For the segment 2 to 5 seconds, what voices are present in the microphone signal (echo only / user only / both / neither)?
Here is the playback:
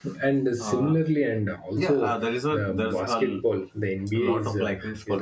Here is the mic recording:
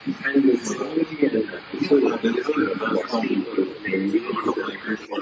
echo only